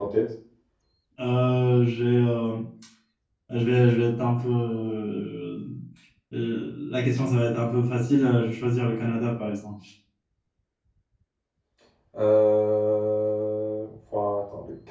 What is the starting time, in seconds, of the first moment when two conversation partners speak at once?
none

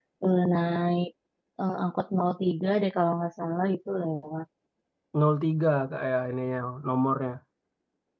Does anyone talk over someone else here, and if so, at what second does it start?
none

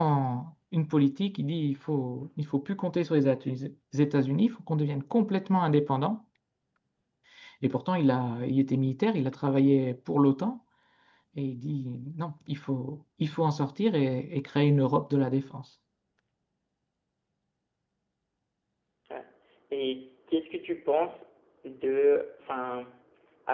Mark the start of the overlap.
none

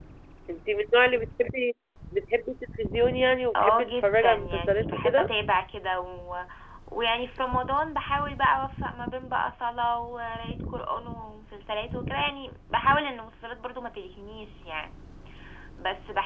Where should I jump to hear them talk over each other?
4 s

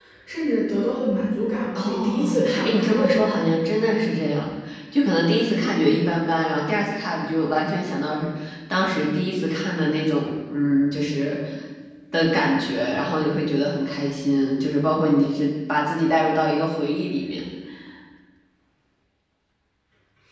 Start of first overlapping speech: 2 s

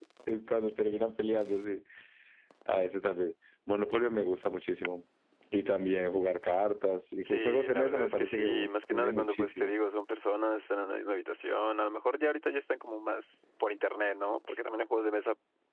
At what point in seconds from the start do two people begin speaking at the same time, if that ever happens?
7 s

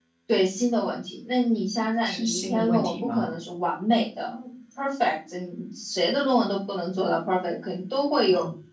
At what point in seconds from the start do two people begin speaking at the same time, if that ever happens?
2 s

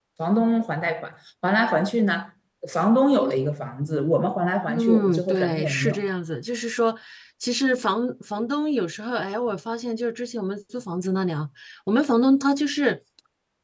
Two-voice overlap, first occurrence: 5 s

